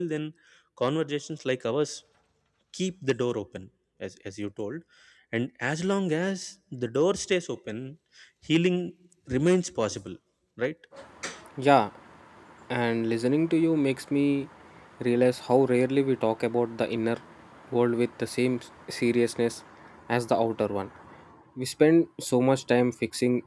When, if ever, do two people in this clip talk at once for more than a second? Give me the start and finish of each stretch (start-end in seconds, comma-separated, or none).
none